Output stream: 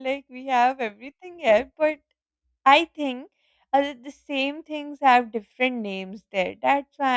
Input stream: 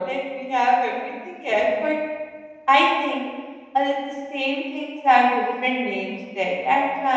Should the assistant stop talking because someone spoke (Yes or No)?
No